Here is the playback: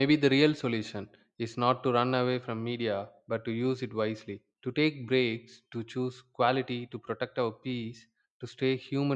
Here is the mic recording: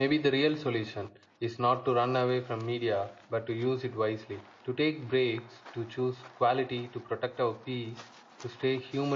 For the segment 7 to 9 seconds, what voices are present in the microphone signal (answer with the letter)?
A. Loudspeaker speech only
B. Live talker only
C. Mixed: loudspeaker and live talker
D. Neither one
A